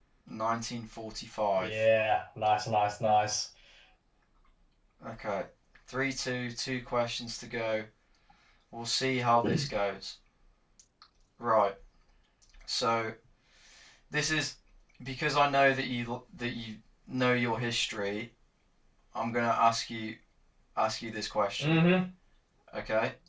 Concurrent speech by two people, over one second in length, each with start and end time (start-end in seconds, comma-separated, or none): none